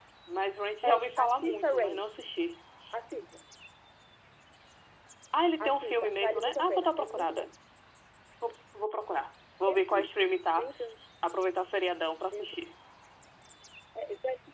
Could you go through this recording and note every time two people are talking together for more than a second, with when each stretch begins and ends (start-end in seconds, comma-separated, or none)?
0.8-2.0, 5.6-7.5